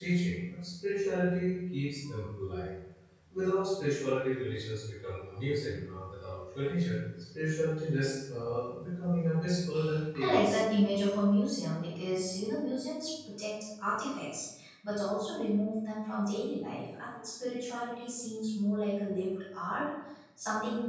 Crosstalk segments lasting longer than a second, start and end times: none

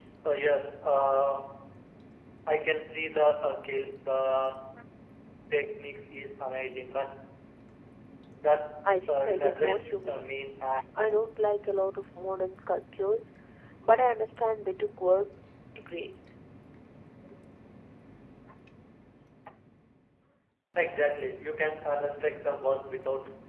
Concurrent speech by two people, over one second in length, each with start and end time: 8.8-10.3

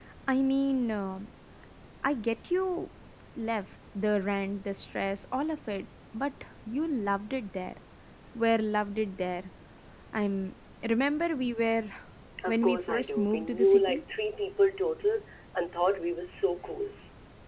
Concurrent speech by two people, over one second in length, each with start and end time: 12.5-14.0

